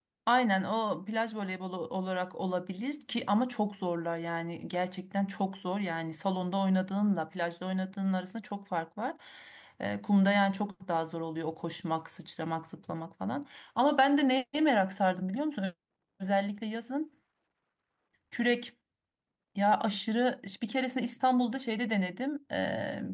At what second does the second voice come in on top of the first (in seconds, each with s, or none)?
none